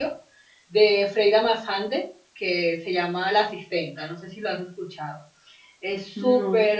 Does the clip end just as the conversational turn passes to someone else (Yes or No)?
No